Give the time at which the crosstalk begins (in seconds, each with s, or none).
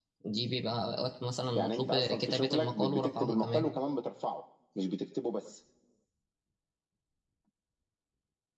1.6 s